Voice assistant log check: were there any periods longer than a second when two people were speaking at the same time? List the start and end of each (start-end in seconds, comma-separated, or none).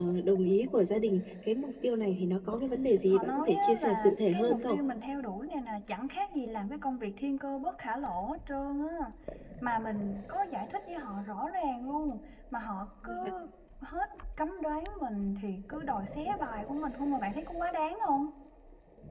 3.1-4.8